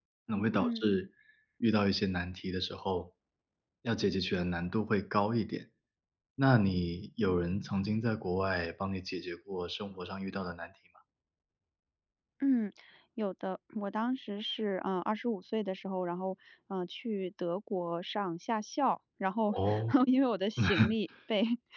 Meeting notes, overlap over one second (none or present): none